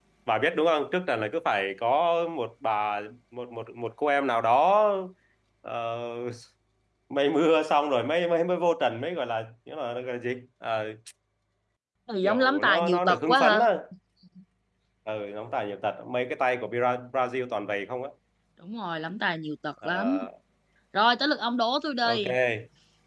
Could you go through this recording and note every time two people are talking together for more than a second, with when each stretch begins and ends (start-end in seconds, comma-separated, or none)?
12.2-13.6